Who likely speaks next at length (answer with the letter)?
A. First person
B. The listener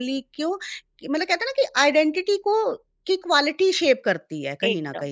B